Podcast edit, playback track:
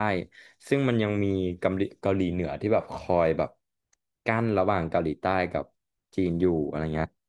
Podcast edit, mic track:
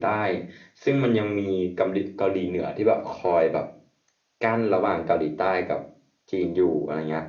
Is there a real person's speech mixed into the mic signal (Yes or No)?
No